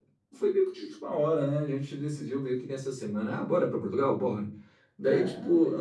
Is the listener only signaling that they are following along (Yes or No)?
Yes